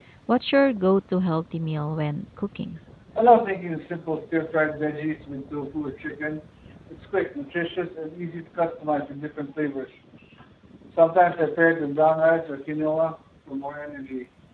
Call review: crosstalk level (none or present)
none